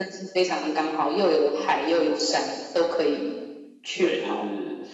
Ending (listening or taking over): taking over